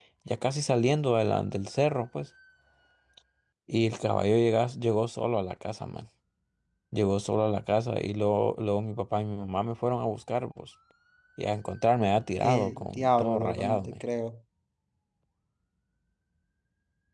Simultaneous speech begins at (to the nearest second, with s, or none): 12 s